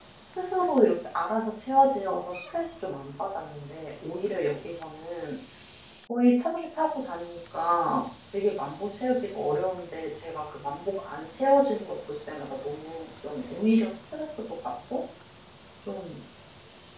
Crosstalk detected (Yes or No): No